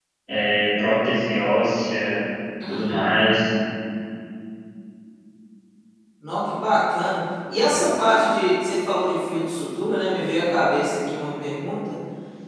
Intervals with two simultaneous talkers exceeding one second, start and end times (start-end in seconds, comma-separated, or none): none